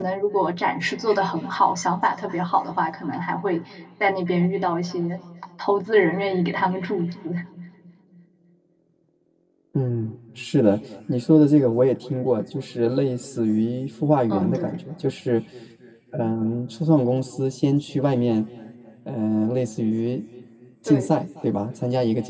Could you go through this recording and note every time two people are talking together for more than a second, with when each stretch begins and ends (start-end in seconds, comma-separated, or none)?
none